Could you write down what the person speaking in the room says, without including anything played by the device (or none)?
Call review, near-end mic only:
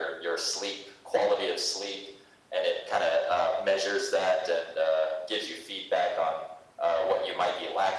none